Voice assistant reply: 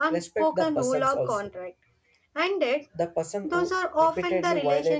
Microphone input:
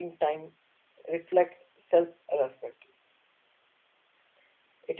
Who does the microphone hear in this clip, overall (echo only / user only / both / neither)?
user only